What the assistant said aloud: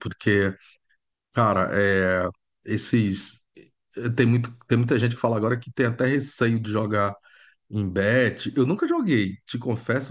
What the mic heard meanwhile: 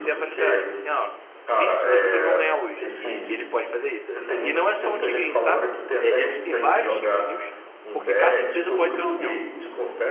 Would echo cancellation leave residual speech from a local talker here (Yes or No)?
Yes